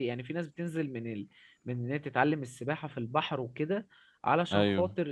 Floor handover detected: No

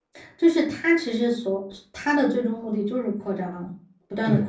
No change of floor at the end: No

